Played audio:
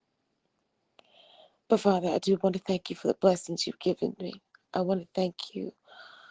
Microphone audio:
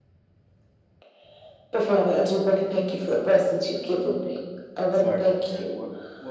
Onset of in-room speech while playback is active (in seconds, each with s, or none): 4.9 s